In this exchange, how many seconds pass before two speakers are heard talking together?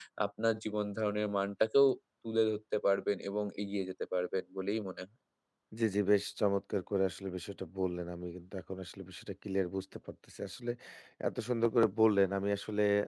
none

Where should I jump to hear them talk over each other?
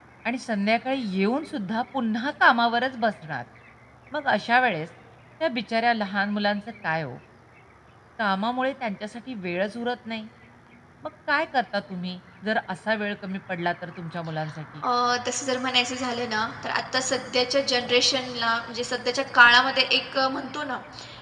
none

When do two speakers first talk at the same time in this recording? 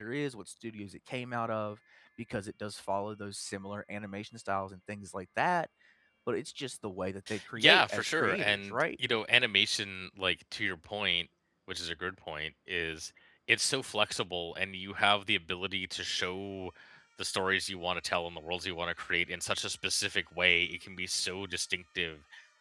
7.6 s

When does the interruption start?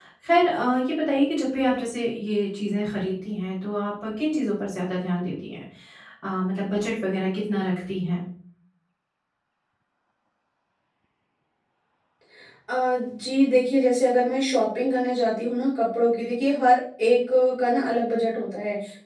none

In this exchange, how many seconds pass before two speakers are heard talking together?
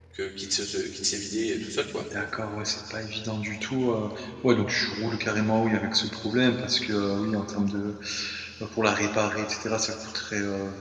none

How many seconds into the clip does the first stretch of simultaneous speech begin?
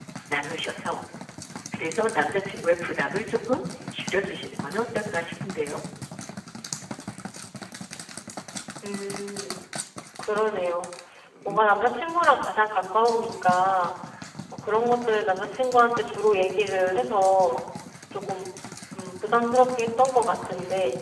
none

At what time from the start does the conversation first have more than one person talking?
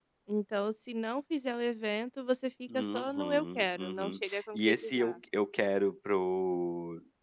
2.7 s

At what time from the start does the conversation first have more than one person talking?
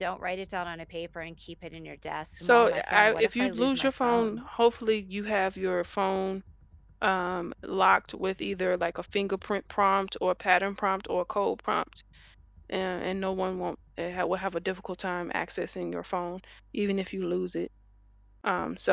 2.4 s

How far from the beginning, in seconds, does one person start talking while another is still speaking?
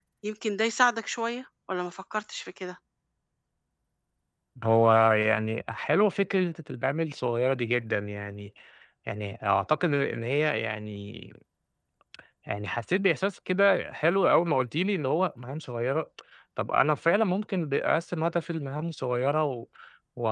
none

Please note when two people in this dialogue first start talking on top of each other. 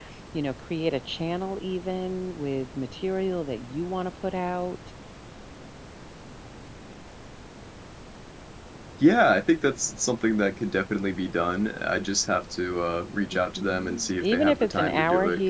13.3 s

